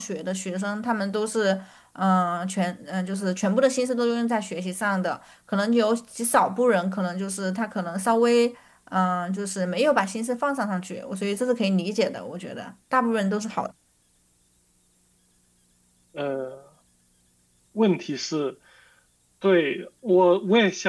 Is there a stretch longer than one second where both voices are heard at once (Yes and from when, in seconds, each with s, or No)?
No